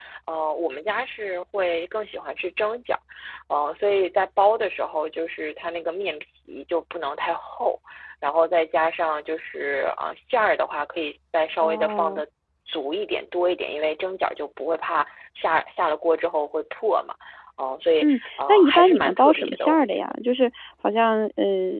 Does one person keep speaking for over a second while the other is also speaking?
Yes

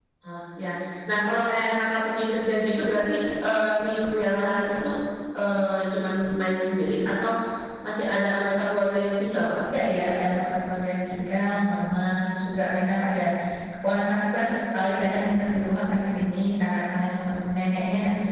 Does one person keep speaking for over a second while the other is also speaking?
No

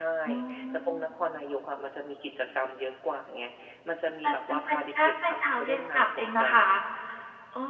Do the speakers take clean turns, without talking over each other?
No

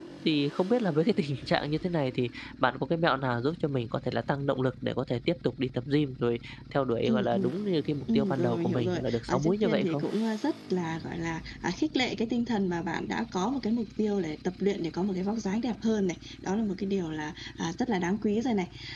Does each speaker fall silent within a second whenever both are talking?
No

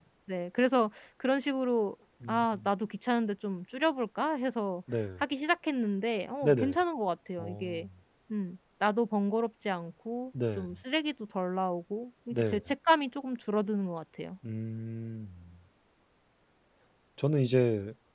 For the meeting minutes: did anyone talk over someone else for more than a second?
No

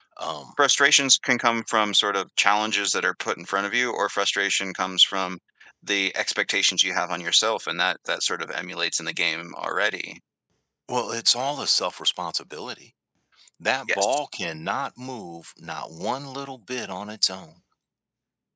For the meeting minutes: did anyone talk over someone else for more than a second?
No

